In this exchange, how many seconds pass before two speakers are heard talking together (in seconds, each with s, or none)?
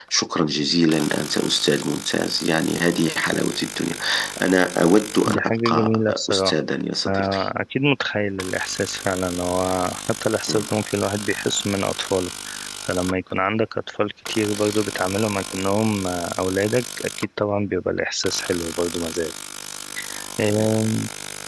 5.3 s